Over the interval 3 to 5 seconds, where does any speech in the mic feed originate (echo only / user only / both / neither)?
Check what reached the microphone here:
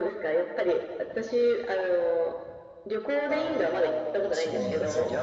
both